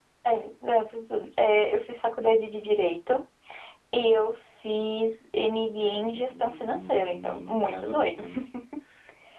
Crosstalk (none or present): present